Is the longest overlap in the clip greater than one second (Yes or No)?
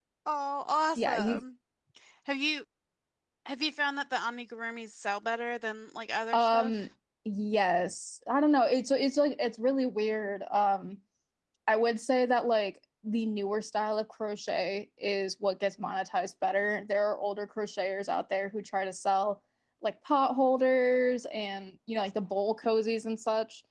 No